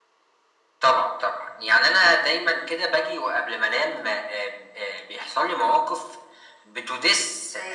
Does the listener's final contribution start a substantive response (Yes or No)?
No